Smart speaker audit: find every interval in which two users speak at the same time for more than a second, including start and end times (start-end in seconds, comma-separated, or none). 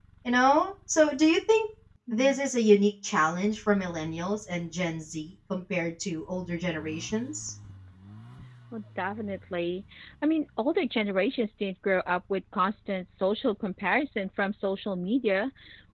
none